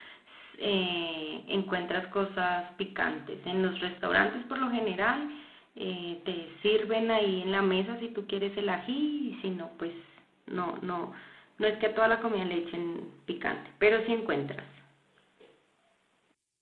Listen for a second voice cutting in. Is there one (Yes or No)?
No